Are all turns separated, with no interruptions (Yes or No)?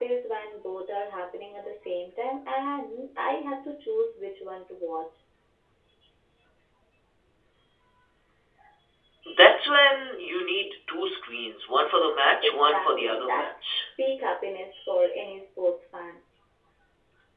No